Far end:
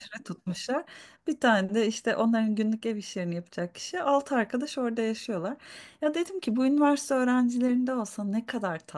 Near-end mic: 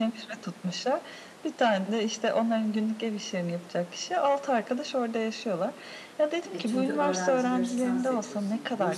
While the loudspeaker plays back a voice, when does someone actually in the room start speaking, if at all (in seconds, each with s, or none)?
6.5 s